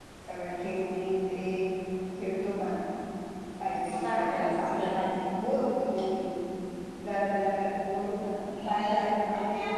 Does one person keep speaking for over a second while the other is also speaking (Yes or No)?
Yes